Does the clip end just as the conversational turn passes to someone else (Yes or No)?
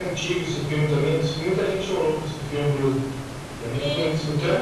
Yes